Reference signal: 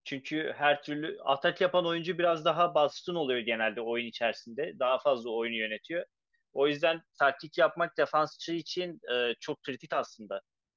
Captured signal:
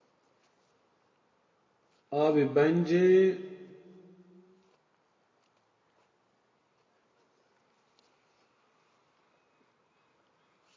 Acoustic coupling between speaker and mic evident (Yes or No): No